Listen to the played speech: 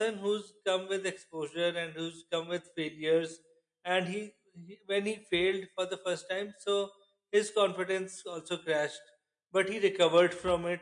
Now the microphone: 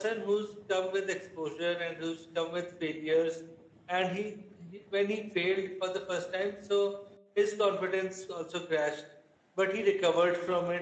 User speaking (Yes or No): No